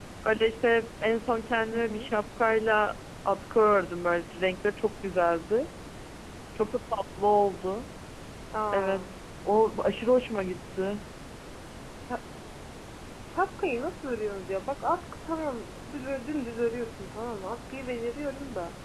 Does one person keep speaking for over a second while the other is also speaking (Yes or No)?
No